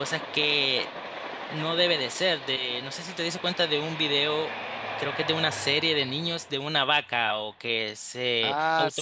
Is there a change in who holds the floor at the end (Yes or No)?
Yes